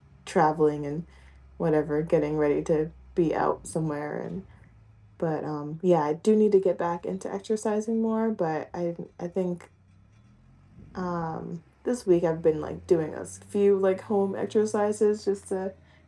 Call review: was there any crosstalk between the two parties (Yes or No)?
No